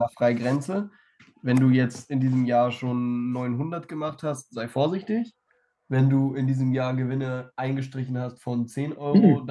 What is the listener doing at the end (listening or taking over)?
taking over